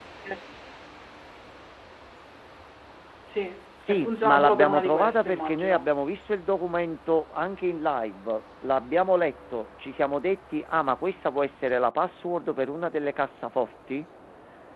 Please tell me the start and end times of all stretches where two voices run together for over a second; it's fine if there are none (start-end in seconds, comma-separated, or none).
3.9-5.8